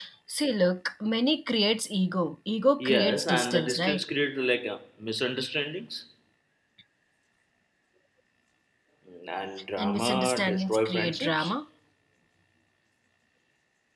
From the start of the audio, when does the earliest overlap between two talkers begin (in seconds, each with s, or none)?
2.8 s